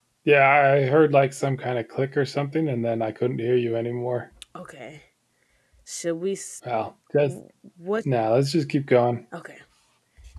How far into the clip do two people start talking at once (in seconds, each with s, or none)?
none